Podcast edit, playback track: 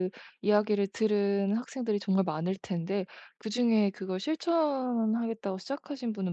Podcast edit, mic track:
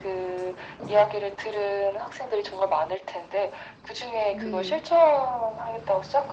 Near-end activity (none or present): present